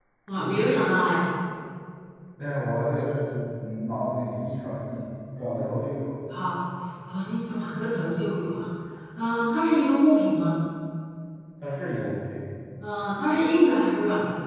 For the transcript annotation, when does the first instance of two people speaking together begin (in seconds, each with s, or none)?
none